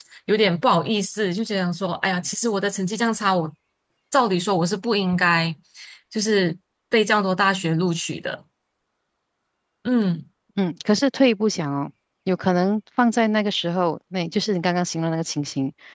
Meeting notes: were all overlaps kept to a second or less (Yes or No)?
Yes